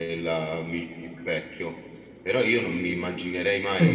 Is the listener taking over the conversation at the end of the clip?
No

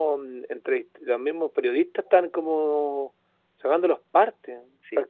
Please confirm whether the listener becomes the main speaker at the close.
Yes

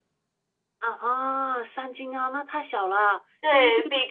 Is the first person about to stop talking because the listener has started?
Yes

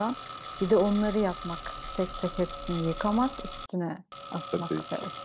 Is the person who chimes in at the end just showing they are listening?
No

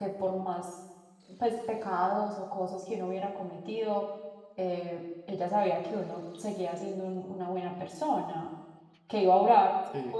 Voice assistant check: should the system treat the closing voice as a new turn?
No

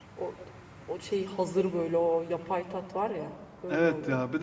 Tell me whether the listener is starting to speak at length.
Yes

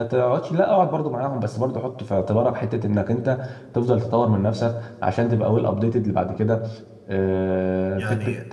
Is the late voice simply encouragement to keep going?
Yes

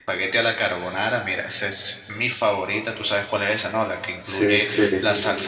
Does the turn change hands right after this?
No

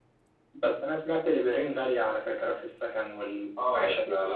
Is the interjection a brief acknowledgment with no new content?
No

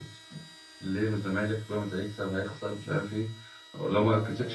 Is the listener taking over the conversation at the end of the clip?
Yes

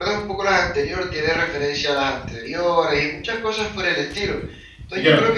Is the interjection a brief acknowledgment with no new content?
Yes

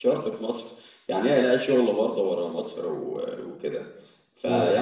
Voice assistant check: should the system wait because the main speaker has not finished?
Yes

